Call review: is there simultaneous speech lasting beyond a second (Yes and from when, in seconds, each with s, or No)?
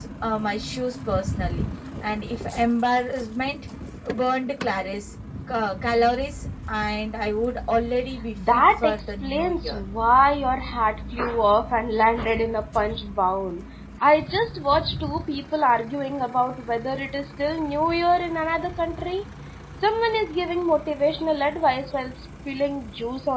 Yes, from 8.4 s